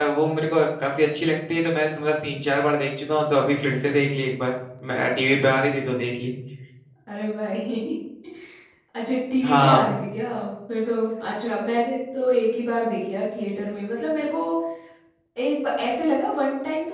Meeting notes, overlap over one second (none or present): none